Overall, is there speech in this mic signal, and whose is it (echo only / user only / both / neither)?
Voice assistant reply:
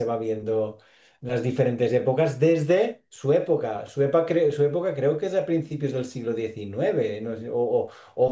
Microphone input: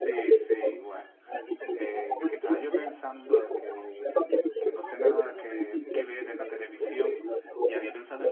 both